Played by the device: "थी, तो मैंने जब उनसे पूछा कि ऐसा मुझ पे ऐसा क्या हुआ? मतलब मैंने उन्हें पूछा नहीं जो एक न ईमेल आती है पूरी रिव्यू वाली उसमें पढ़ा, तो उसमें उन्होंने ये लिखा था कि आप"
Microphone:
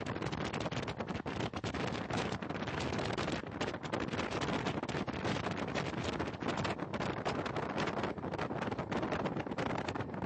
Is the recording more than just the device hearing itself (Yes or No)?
No